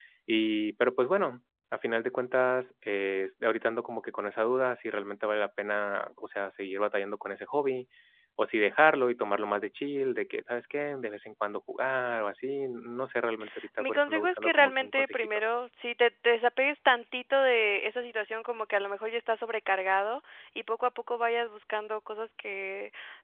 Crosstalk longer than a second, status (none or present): present